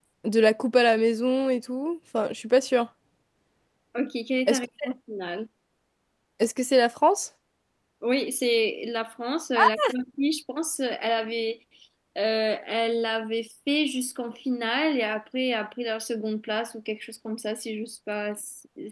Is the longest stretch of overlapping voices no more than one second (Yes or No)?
Yes